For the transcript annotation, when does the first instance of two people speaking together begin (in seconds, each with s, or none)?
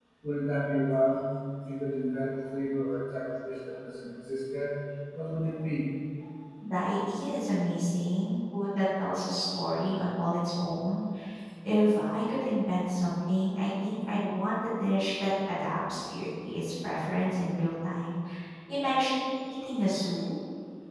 none